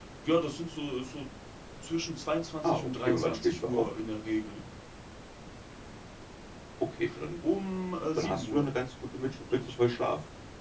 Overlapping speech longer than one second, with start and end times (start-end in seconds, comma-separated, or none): 2.6-3.8